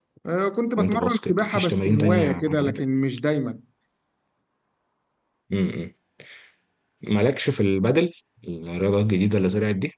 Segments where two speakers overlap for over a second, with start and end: 0.8-2.8

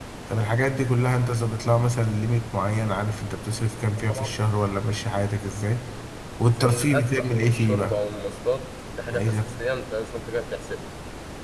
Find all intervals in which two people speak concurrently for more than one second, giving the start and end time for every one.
6.4-8.0

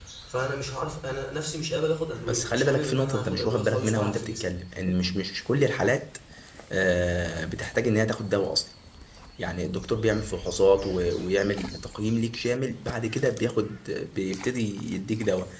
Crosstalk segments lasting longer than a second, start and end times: 2.3-4.5

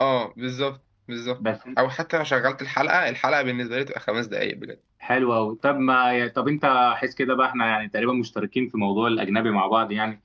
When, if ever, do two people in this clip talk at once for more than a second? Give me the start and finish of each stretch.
none

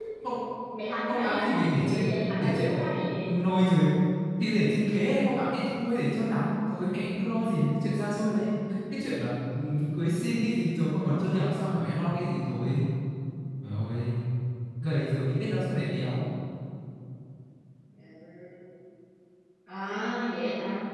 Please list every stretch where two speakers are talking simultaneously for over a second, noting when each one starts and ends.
1.1-2.9

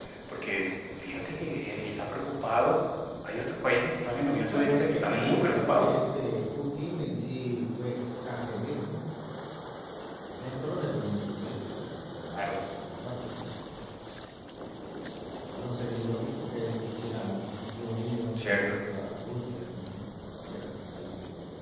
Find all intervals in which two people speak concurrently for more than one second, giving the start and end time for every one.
4.5-5.9

